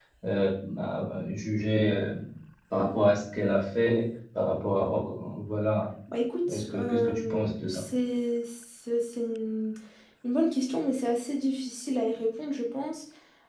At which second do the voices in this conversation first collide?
7 s

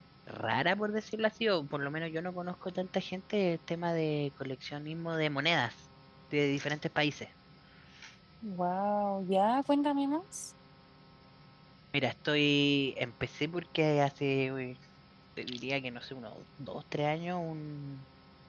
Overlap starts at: none

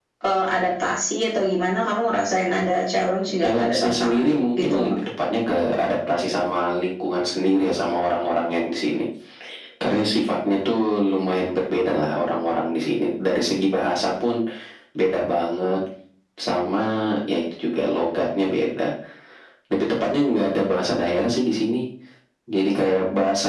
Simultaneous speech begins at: 3 s

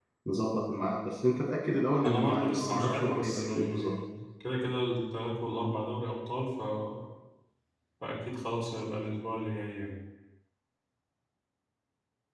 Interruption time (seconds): 2 s

